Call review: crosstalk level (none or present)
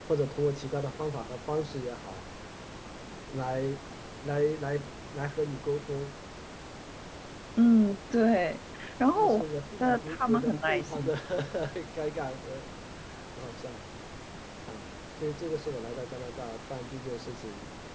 present